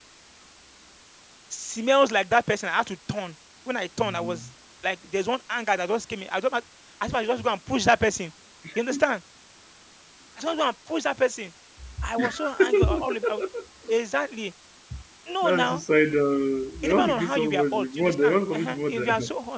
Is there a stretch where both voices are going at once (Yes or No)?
Yes